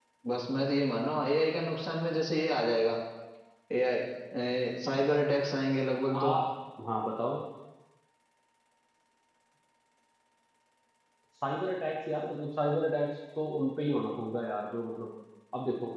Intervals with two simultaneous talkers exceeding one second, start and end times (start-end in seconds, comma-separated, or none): none